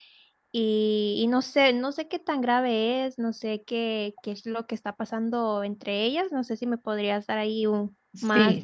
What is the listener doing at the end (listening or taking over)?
taking over